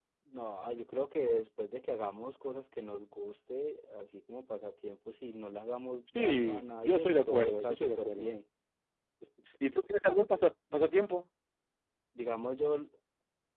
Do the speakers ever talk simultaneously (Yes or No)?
Yes